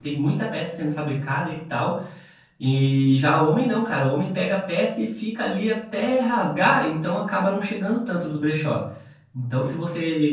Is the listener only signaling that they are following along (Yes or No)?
Yes